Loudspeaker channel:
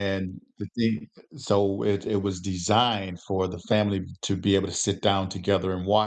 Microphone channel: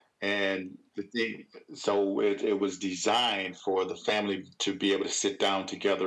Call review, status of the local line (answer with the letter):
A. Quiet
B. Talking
A